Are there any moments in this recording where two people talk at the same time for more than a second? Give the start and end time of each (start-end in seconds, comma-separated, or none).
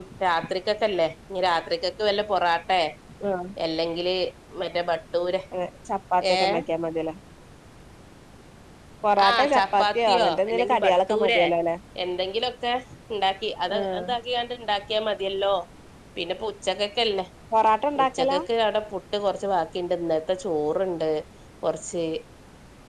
9.3-11.4